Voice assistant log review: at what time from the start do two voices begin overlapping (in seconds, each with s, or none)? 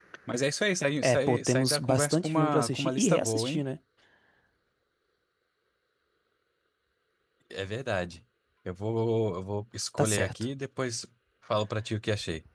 1.0 s